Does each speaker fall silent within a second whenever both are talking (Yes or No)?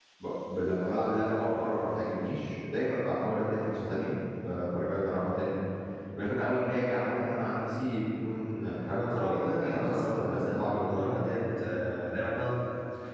No